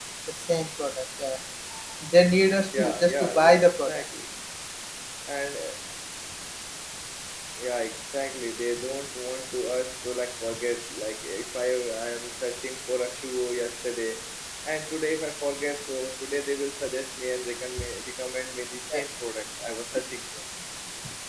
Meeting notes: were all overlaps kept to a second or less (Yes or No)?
No